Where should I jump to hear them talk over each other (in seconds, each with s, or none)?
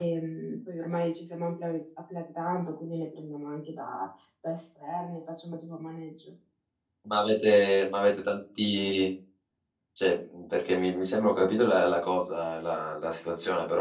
none